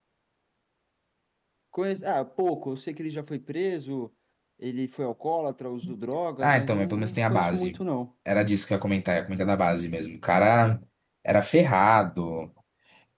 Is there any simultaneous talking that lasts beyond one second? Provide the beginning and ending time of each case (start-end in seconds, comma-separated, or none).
6.4-7.8